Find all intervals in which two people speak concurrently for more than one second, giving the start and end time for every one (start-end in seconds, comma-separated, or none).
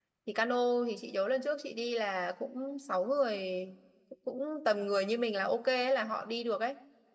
none